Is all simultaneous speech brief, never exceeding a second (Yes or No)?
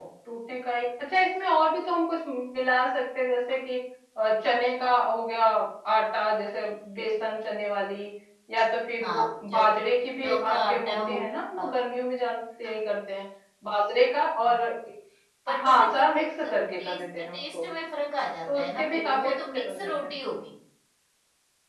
No